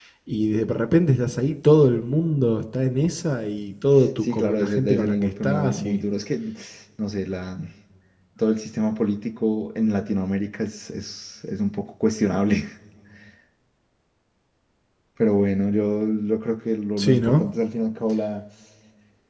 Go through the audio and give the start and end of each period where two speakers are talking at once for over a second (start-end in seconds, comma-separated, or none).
4.2-6.0